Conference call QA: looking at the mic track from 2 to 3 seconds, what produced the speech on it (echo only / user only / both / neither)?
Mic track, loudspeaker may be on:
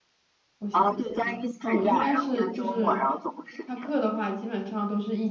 both